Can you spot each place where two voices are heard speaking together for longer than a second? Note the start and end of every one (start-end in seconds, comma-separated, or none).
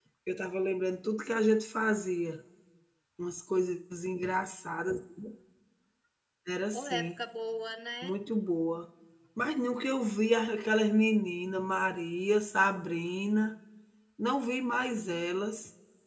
none